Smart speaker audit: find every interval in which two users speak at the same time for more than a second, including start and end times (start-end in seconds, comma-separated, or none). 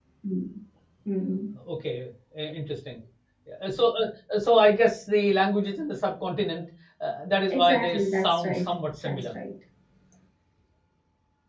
7.5-9.3